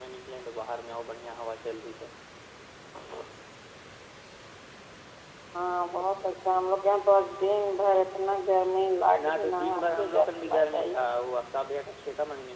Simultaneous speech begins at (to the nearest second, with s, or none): 9 s